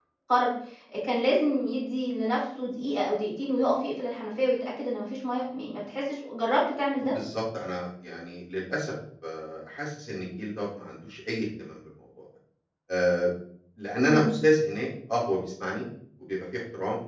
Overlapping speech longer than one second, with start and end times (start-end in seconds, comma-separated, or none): none